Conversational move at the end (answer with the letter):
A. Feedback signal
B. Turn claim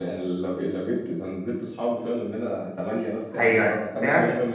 A